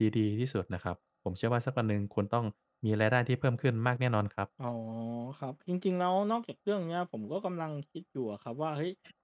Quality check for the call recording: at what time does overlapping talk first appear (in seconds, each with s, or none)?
none